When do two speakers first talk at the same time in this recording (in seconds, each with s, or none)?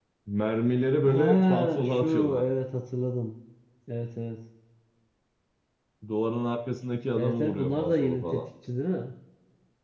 1.0 s